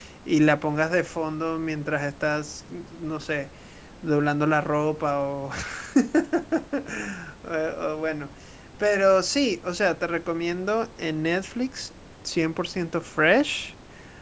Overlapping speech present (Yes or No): No